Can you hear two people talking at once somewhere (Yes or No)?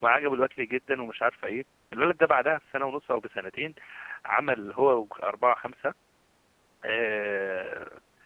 No